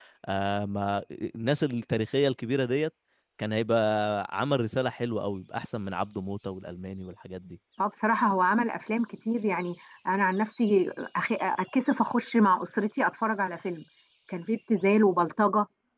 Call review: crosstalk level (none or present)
none